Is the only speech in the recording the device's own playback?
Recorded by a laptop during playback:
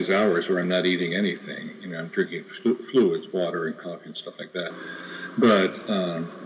Yes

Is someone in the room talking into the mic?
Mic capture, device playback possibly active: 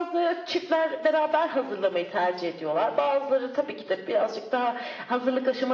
No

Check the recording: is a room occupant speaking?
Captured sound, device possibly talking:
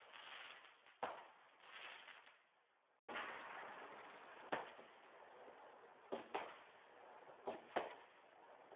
No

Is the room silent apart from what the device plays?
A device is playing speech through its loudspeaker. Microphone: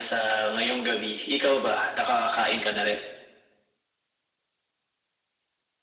Yes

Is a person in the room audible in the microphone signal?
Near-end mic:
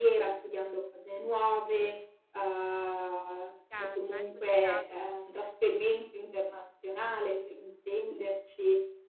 Yes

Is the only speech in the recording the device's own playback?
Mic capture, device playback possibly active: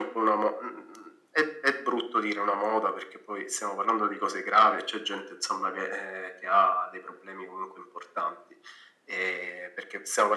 Yes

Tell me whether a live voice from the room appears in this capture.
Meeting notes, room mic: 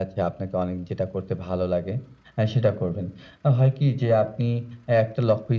No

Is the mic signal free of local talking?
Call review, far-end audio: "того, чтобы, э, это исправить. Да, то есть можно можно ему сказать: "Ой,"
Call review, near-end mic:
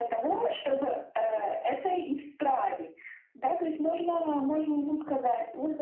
Yes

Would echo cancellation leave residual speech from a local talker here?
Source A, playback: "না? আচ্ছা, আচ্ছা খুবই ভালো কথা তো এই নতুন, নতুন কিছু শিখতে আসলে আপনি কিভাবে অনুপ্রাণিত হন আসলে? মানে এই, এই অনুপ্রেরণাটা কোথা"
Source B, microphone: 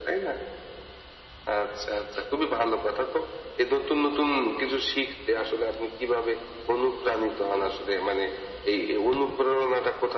No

